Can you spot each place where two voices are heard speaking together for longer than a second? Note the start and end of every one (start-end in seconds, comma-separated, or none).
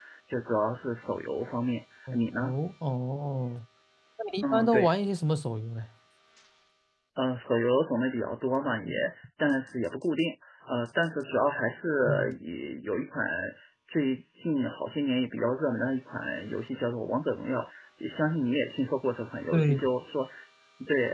none